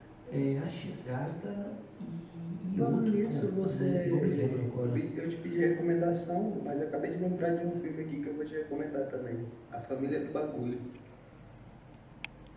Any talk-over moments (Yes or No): Yes